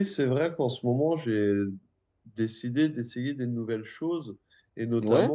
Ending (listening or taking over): listening